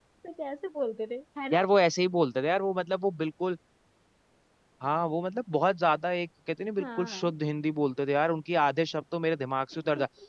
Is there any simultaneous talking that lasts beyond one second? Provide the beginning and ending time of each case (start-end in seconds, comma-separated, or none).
none